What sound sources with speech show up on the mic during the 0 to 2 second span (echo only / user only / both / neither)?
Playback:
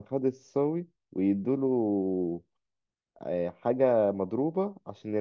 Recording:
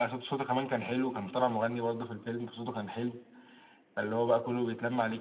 user only